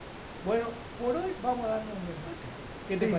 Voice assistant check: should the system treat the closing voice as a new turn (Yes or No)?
Yes